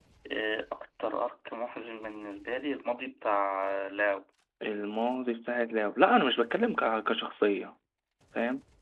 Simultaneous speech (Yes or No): No